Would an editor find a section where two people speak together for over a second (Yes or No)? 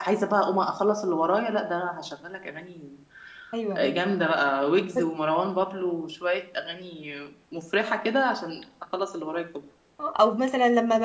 No